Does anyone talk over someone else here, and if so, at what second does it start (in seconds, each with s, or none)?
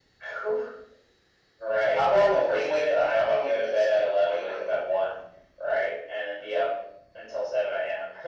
1.9 s